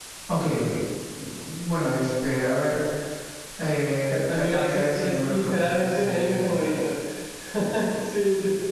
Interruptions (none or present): present